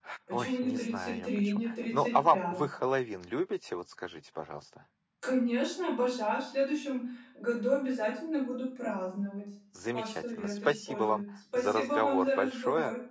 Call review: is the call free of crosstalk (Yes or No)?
No